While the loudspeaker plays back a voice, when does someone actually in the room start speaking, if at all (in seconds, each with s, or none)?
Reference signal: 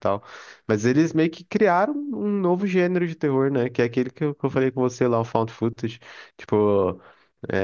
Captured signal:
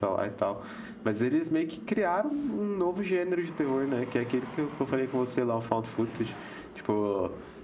none